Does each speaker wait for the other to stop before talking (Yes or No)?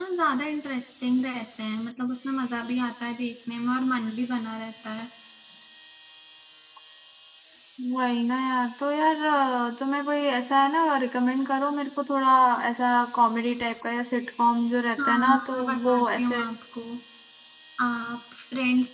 No